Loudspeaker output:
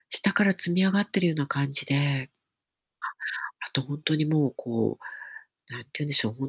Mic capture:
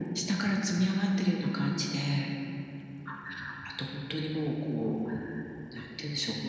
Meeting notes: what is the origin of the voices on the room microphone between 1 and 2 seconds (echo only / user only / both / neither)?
echo only